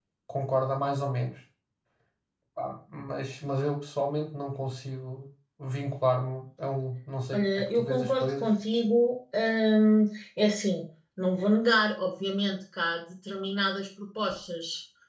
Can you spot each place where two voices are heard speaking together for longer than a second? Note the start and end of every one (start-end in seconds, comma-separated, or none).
7.3-8.5